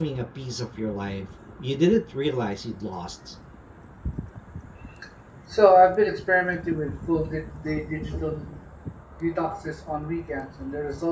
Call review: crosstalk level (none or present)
none